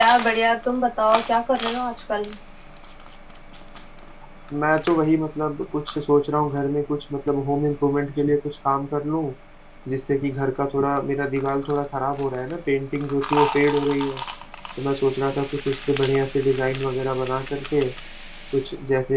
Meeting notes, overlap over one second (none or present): none